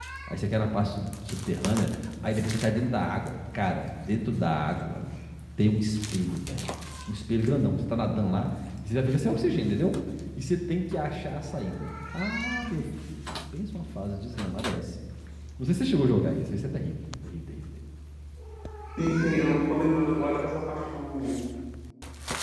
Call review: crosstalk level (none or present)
none